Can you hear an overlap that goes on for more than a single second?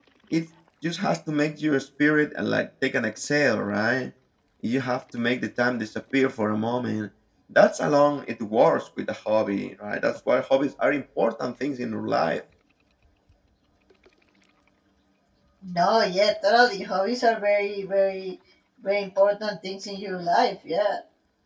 No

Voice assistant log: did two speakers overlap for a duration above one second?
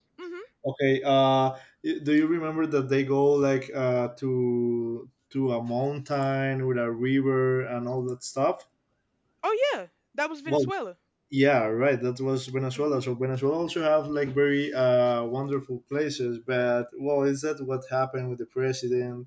No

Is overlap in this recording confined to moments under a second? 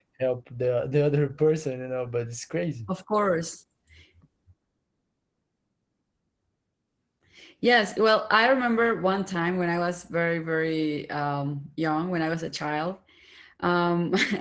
Yes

